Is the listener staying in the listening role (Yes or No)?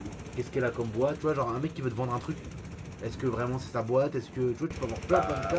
No